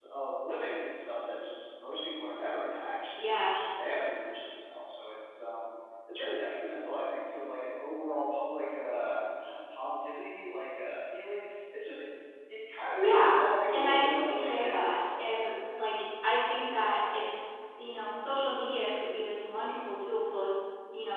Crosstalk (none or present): present